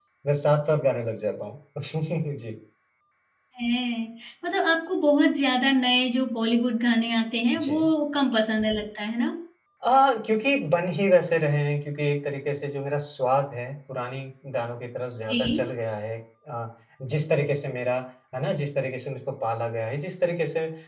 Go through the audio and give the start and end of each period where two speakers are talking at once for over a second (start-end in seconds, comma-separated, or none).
none